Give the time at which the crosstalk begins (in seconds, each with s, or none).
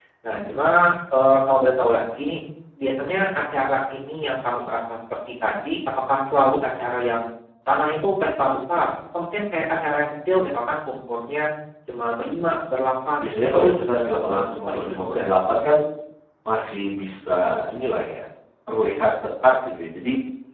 13.2 s